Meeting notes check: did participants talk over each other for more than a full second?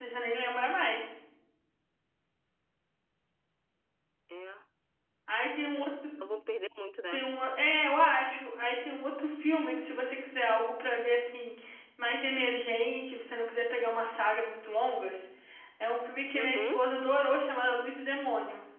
No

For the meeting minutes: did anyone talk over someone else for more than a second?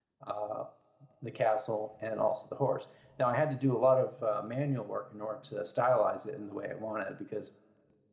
No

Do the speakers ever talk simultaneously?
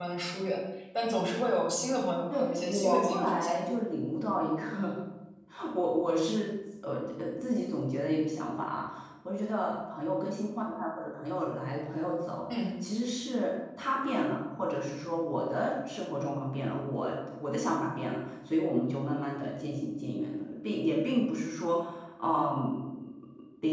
Yes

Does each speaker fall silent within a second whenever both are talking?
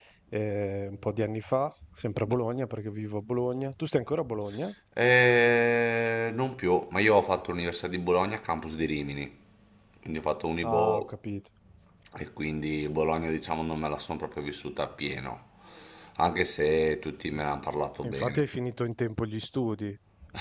Yes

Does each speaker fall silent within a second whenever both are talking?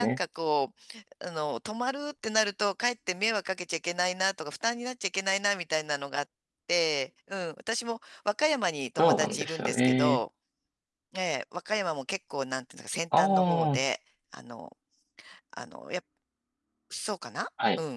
No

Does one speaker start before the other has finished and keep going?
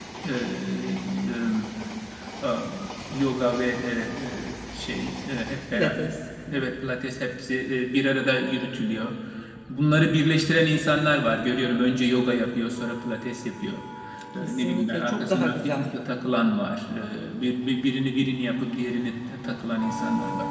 Yes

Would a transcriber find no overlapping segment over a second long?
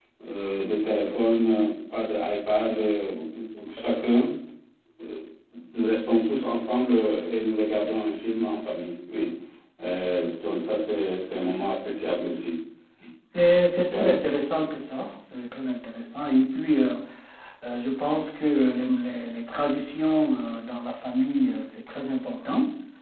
Yes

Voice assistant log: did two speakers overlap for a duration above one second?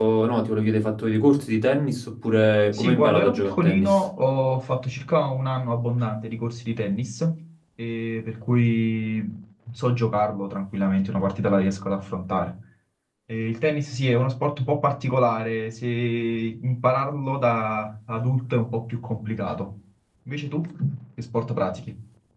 Yes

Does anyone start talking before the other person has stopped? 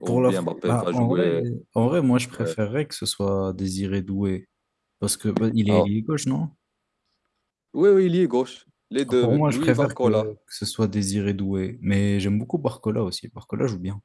Yes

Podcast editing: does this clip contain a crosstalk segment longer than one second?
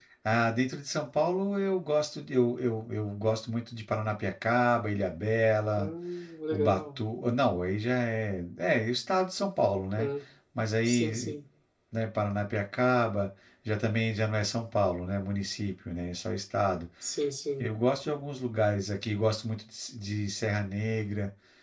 No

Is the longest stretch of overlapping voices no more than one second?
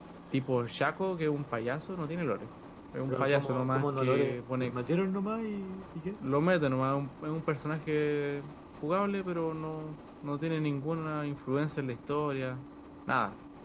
No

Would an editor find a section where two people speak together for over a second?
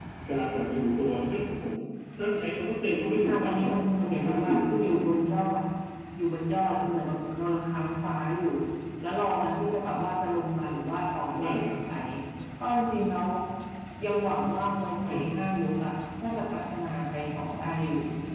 Yes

